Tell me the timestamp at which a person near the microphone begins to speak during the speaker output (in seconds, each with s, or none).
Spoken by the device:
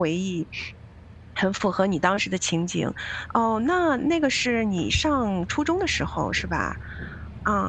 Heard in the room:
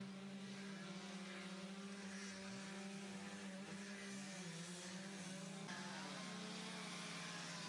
none